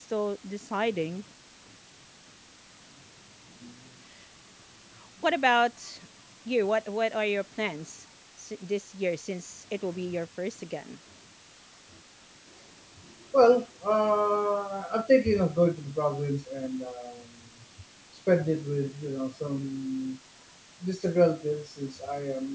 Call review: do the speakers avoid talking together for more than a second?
Yes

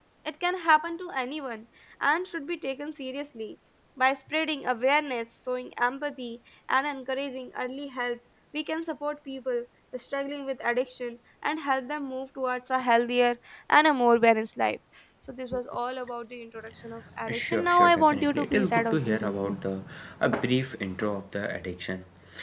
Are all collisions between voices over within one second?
No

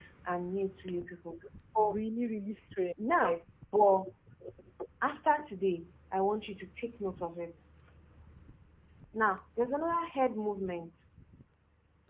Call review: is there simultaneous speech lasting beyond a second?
No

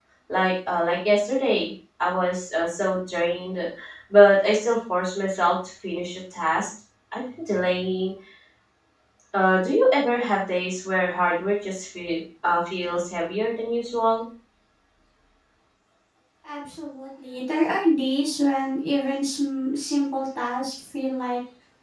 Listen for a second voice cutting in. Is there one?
No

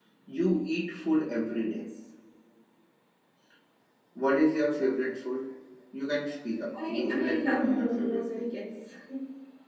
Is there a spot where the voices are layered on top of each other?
Yes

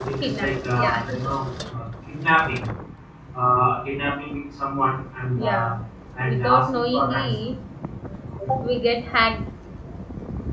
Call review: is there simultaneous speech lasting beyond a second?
Yes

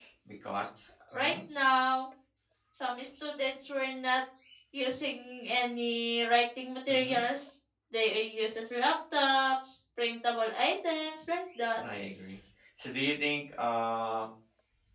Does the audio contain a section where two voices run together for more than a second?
No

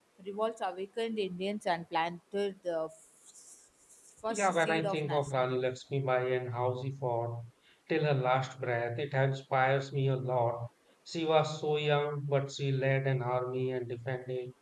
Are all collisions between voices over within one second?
No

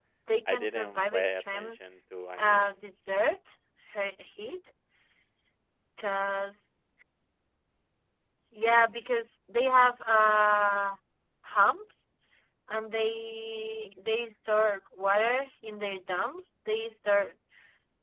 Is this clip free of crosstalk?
No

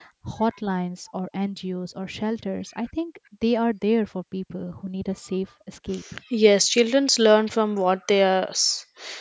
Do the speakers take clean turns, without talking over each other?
Yes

